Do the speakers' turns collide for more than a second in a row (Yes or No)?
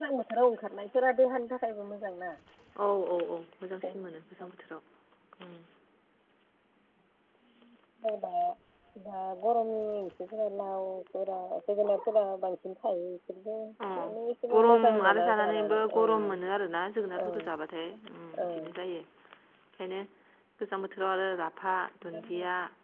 Yes